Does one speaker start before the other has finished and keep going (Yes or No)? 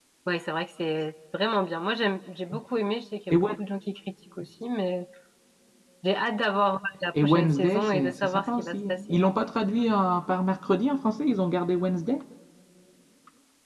Yes